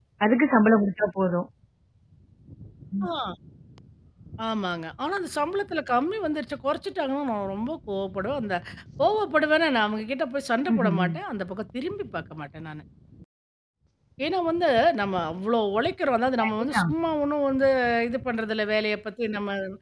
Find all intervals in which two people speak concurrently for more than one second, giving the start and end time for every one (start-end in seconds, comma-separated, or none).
none